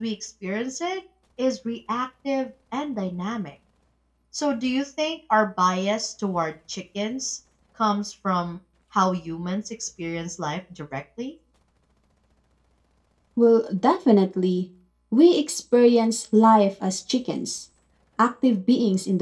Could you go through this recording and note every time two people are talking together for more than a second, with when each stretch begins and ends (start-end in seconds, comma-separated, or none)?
none